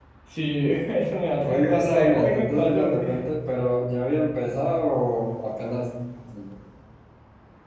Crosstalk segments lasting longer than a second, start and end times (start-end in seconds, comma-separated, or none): 1.4-3.0